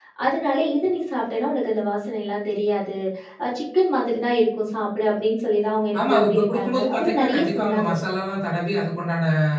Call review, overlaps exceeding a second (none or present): present